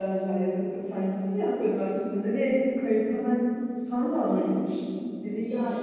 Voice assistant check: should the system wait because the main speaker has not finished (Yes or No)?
No